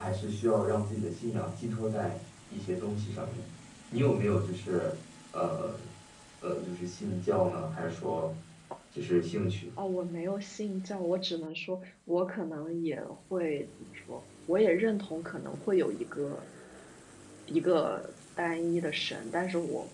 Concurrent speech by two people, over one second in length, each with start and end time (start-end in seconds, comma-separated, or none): none